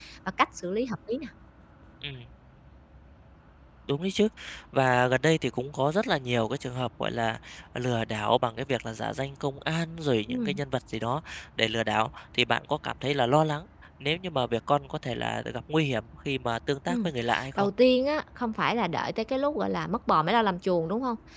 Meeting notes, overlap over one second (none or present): none